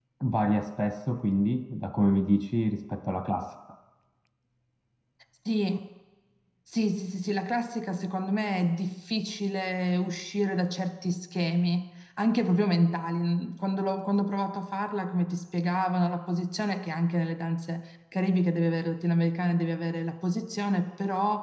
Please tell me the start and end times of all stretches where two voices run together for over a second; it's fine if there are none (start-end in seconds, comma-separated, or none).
none